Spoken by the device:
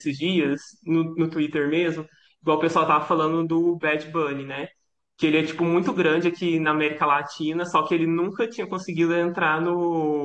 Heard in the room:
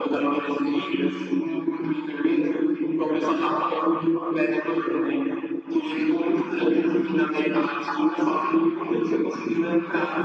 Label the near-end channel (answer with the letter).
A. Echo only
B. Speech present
A